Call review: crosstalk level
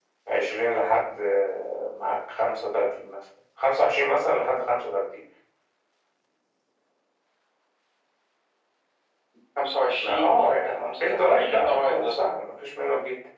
present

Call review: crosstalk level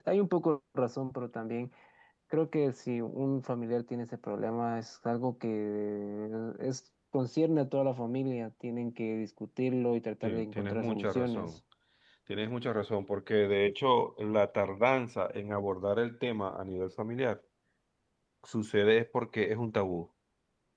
present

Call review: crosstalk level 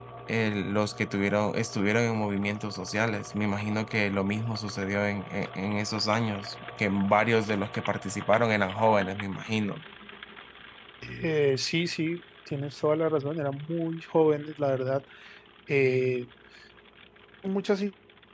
none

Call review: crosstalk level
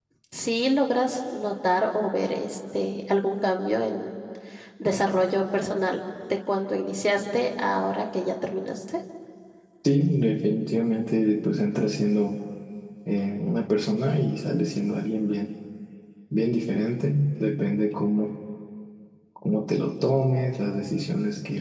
none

